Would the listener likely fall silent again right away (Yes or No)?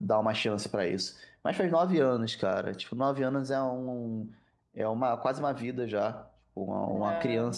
Yes